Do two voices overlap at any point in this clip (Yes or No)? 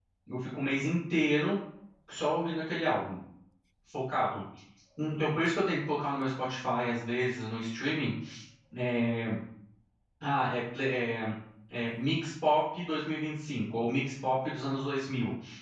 No